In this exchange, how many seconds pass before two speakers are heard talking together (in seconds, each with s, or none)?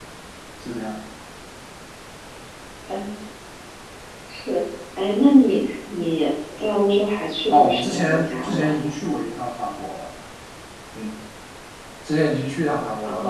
7.5 s